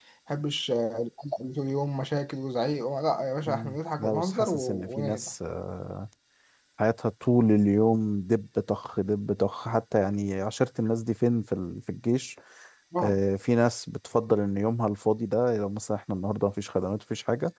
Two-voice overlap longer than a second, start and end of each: 3.5-5.3

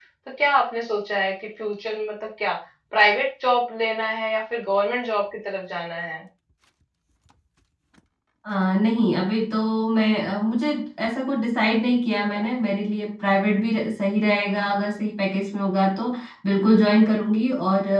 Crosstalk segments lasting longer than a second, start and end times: none

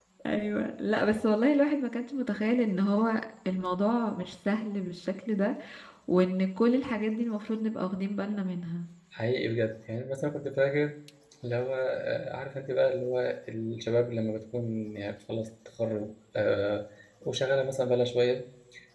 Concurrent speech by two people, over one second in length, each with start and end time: none

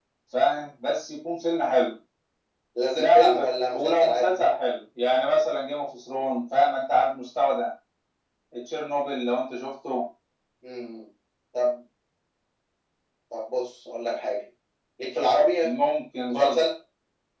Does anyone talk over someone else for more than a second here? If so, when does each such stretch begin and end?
3.0-4.4

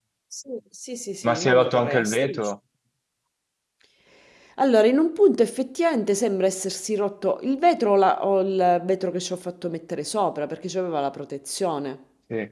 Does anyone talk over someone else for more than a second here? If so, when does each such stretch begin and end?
1.2-2.5

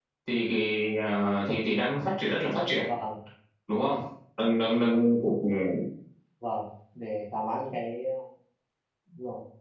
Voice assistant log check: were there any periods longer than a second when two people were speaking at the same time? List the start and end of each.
none

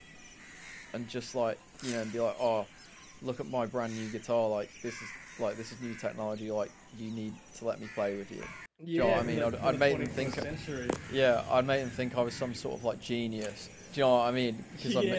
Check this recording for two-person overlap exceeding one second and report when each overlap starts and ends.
8.9-10.4

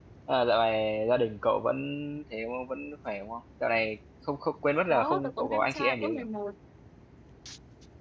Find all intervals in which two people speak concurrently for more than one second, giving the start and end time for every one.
4.9-6.2

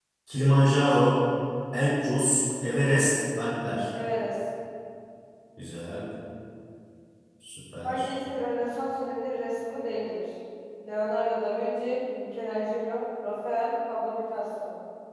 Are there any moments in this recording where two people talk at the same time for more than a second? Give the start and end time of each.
none

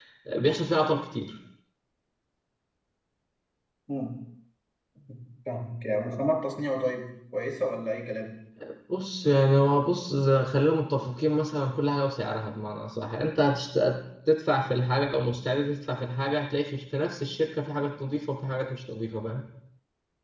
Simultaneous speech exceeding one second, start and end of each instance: none

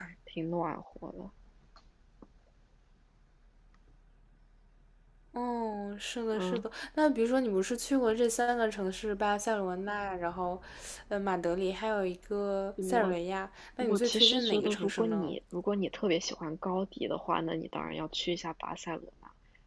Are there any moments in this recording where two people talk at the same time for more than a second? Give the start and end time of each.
13.8-15.4

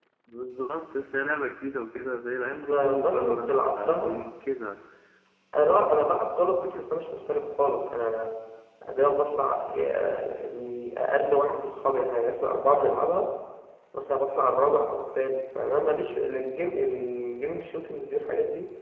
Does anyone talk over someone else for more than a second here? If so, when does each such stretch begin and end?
2.7-4.1

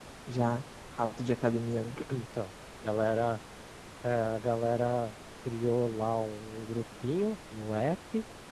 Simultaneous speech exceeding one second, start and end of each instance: none

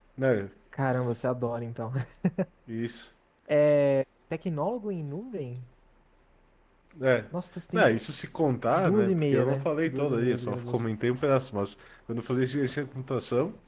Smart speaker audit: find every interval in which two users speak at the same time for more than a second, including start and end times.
8.7-10.8

